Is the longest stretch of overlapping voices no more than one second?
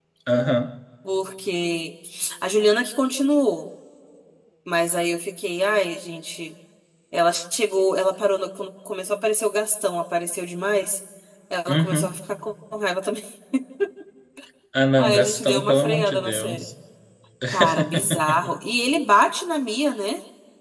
No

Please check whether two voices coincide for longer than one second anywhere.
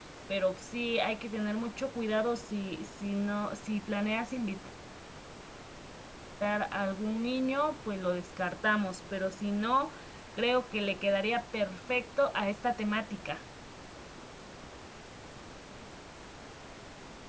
No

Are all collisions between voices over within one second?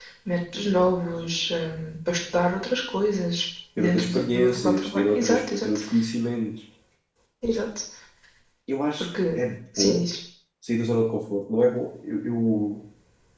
No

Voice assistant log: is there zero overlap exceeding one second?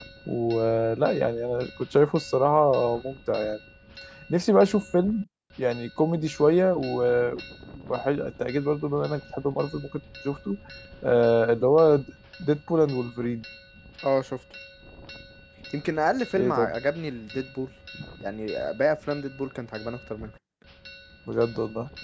Yes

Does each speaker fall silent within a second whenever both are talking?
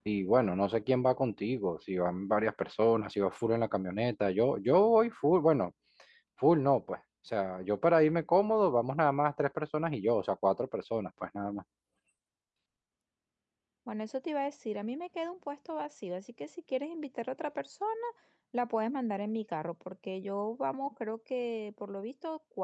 Yes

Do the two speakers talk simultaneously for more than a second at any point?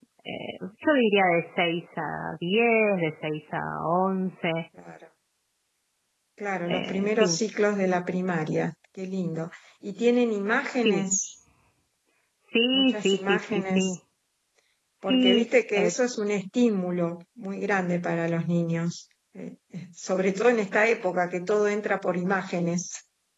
Yes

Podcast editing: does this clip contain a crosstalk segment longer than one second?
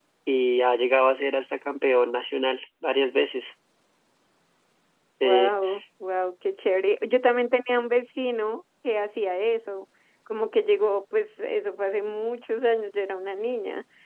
No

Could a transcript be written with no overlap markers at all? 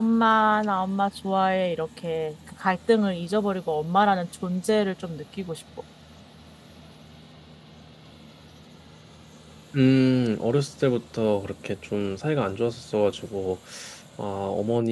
Yes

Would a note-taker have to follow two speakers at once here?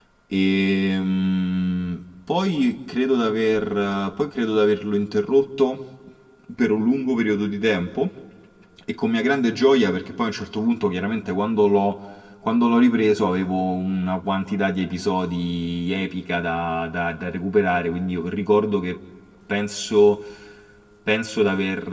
No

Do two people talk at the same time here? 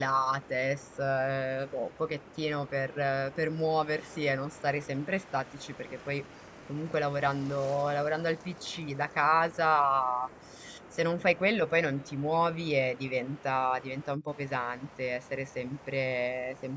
No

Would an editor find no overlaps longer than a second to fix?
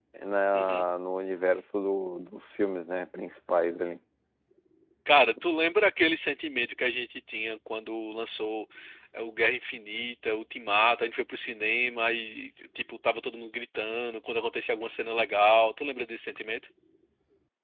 Yes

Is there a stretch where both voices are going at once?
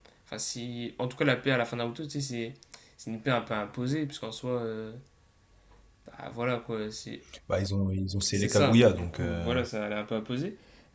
Yes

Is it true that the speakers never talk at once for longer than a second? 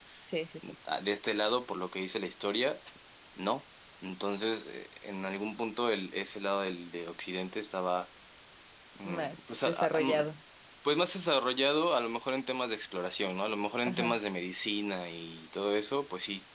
No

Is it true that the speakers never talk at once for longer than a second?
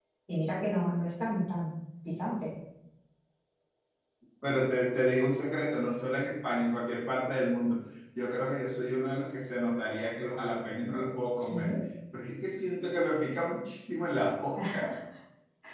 Yes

